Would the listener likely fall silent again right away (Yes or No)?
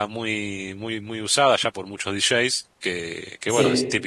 Yes